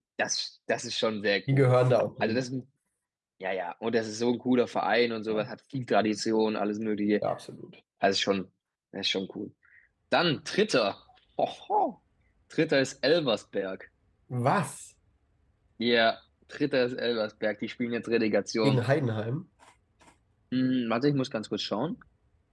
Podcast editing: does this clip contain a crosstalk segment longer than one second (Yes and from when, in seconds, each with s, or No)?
No